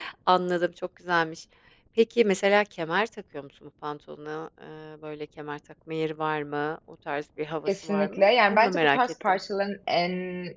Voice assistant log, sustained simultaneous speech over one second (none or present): present